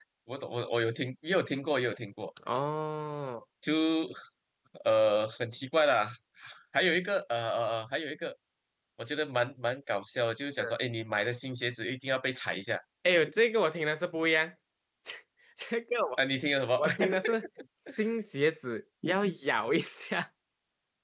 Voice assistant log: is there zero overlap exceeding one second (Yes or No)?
Yes